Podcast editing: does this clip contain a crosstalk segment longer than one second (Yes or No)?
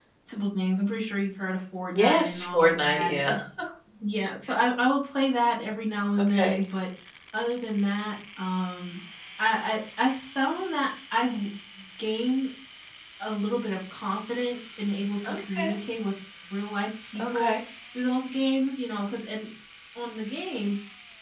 Yes